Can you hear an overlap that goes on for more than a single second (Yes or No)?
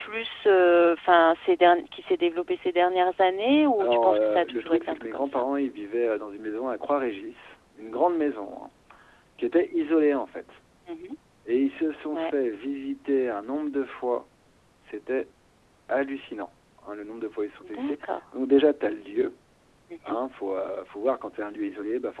Yes